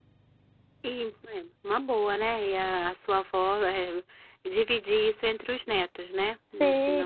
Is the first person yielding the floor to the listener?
Yes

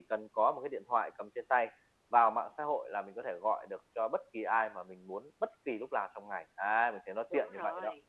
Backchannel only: No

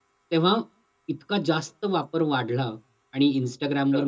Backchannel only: Yes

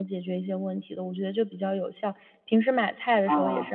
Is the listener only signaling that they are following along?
Yes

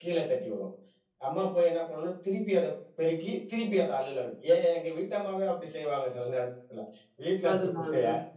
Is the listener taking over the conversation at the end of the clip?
No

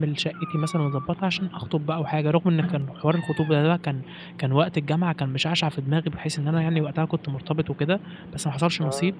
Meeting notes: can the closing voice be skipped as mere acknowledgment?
Yes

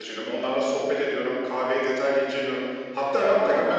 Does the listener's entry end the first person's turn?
No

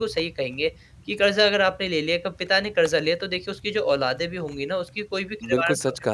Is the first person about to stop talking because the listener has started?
Yes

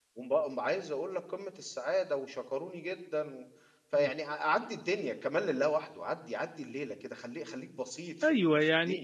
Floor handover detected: Yes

